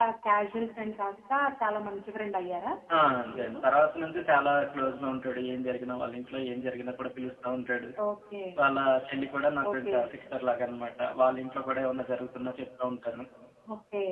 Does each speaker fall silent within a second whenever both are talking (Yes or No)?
Yes